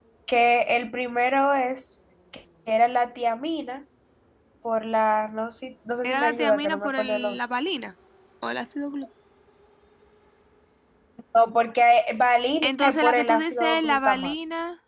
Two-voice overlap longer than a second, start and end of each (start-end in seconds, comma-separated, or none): 6.0-7.4, 12.6-14.3